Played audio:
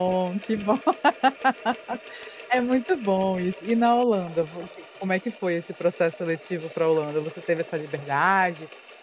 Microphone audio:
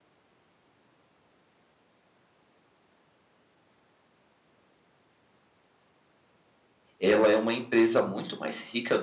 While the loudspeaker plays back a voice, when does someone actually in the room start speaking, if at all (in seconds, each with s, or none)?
7.0 s